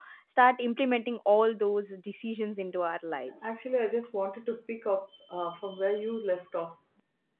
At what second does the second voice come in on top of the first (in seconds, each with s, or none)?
none